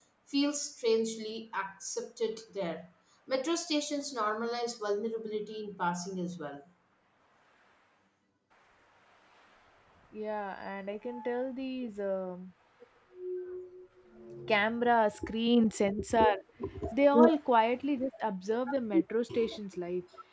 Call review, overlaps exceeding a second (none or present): none